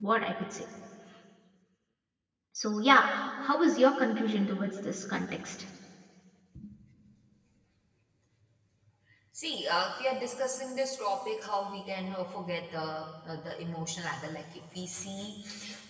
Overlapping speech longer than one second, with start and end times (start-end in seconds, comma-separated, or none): none